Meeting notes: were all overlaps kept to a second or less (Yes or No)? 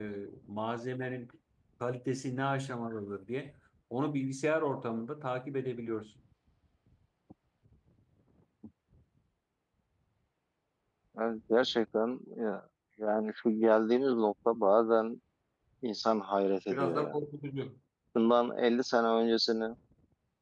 Yes